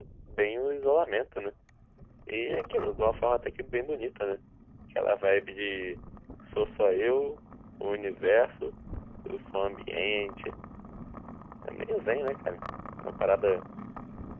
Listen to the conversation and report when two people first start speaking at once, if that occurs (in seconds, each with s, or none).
none